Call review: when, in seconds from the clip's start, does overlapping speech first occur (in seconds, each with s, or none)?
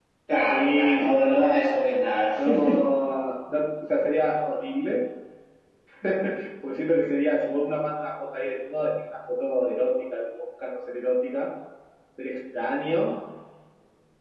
0.5 s